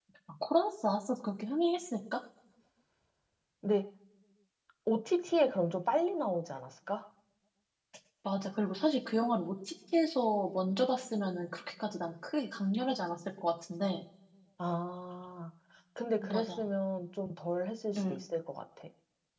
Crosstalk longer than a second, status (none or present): none